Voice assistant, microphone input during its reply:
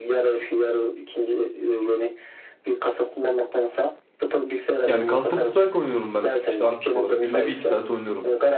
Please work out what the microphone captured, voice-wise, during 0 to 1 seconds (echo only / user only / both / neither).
echo only